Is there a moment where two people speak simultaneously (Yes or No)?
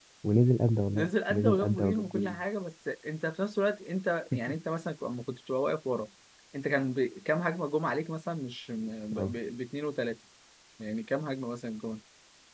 Yes